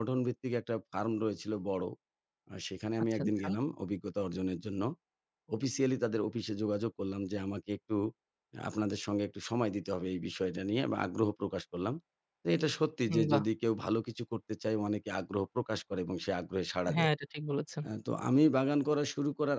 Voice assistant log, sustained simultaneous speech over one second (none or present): none